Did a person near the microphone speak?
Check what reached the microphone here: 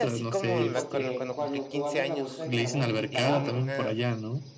Yes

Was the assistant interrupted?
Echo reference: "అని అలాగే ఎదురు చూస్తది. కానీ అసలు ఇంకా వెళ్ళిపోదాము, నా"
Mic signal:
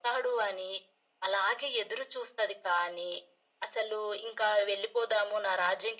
No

